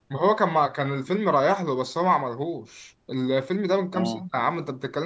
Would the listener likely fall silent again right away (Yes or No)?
Yes